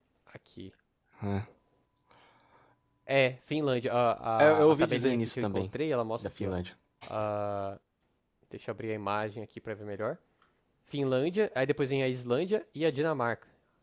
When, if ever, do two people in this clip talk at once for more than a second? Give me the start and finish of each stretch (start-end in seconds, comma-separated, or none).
4.4-5.7